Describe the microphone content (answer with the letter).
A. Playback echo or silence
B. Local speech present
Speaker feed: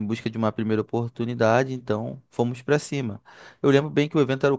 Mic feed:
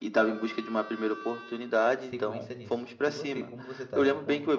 B